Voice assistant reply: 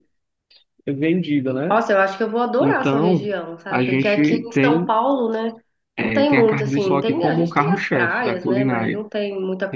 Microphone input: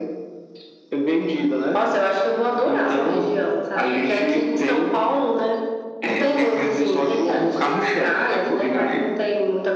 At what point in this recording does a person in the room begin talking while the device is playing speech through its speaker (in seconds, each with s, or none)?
none